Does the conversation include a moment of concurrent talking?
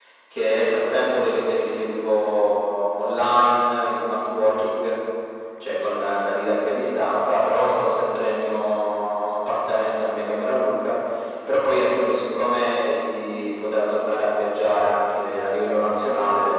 No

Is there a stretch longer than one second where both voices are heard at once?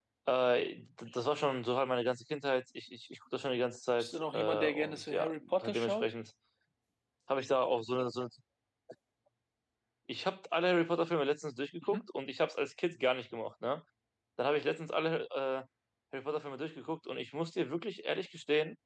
Yes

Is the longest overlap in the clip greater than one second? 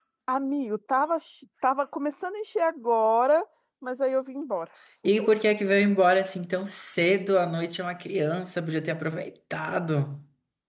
No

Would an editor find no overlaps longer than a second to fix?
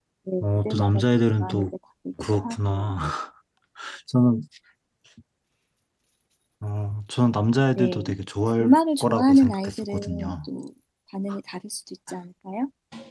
No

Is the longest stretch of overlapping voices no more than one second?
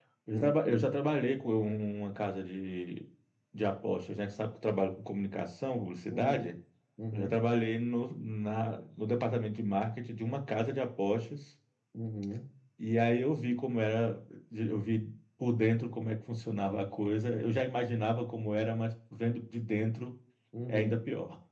Yes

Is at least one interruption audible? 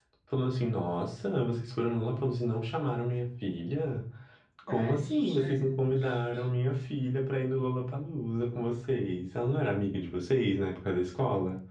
Yes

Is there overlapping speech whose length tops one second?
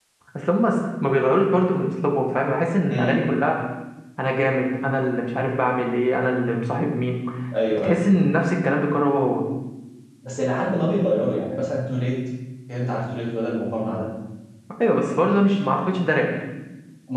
No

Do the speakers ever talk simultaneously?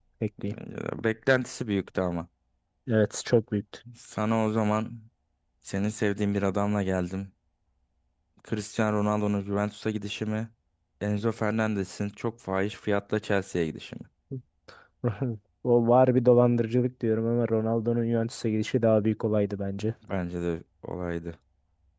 No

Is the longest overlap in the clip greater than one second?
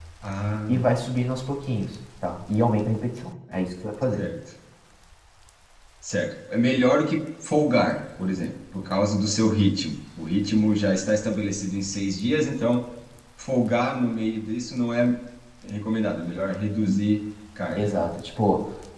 No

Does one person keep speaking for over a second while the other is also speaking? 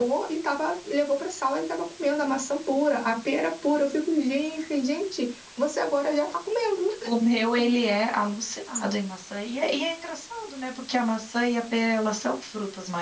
No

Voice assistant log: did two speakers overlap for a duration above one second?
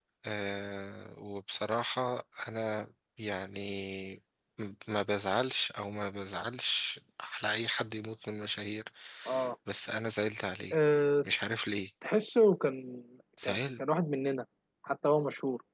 No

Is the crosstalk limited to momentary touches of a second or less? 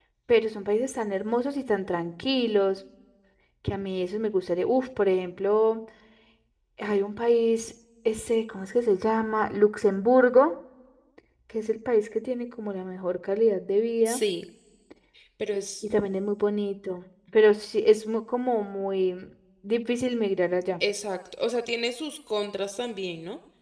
Yes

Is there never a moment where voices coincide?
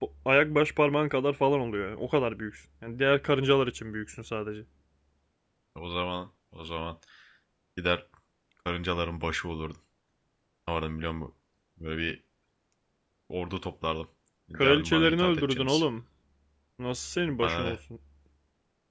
No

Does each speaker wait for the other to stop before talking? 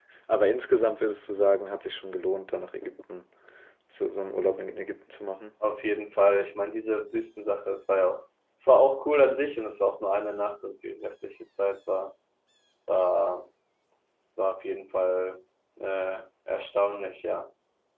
Yes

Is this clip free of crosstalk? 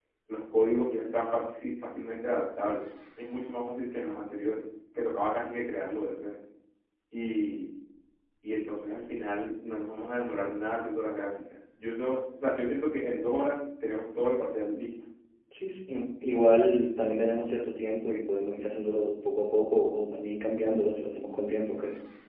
Yes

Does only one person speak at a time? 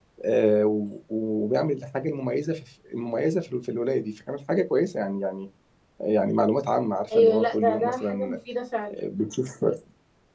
No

